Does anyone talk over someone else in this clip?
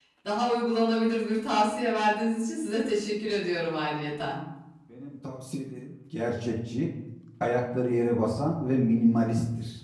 No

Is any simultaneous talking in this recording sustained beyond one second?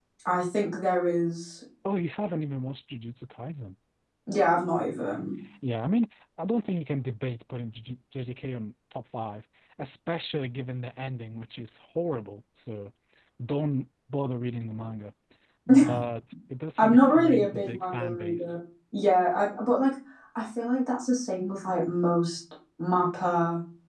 Yes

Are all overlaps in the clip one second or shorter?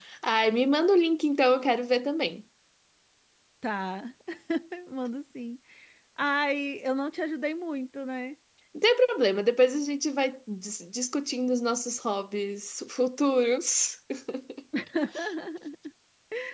Yes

